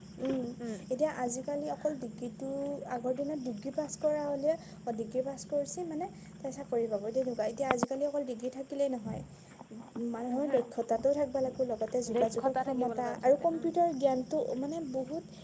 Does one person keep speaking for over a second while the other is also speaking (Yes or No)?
Yes